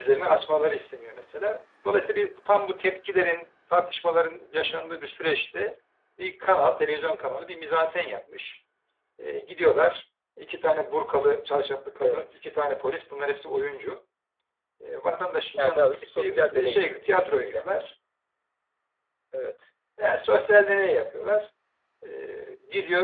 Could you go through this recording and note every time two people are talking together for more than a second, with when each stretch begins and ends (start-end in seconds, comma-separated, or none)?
15.6-17.7